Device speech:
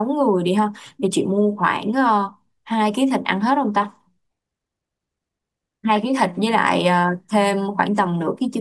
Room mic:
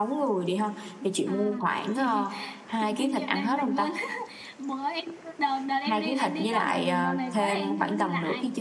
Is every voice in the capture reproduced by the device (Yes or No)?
No